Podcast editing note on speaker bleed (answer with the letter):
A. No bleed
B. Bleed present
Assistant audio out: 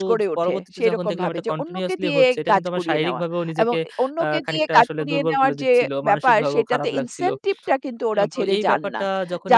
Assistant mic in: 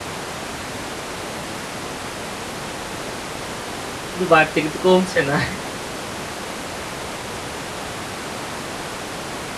A